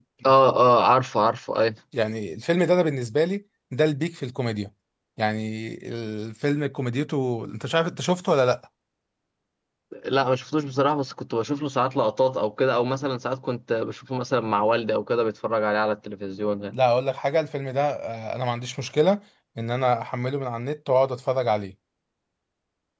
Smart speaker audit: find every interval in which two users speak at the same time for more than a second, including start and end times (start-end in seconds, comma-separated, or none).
none